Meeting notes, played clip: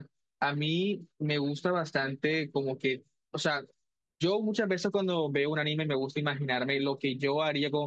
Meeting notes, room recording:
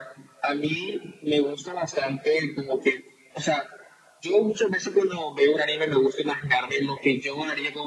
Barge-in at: none

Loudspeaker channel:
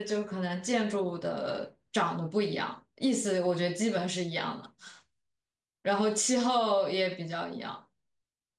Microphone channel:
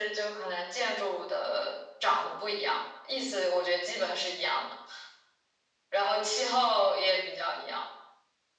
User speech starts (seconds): none

